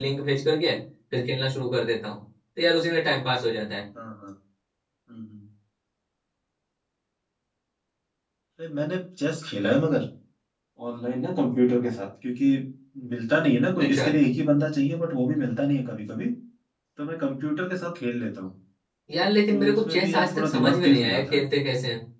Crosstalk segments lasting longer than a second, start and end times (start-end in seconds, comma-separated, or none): 19.5-21.4